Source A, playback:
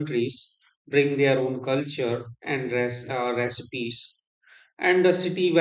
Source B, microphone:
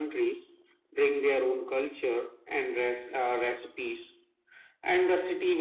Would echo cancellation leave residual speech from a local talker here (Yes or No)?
No